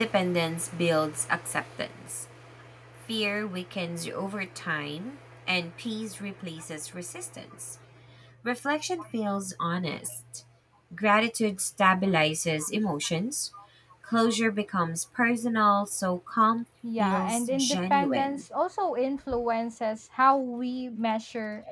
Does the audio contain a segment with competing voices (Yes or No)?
Yes